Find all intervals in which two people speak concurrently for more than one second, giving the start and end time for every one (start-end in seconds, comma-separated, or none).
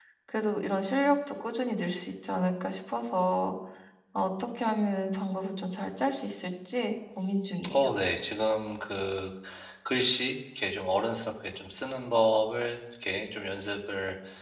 none